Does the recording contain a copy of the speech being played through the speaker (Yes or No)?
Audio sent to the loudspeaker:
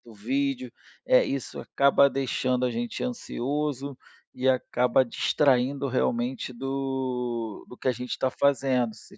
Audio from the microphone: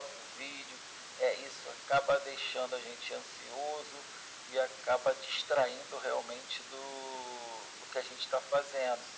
Yes